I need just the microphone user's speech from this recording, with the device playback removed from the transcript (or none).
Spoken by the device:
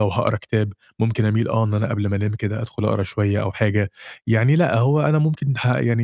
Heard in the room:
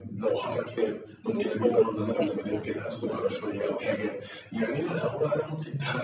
مش كل يوم واحد يعني.